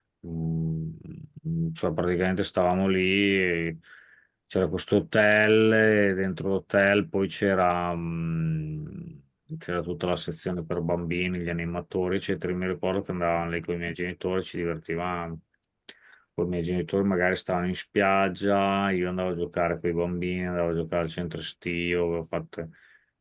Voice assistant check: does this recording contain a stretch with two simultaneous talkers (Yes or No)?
No